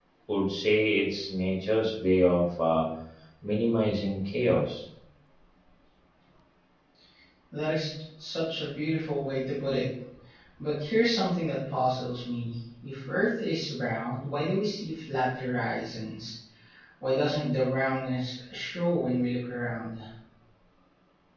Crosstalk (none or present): none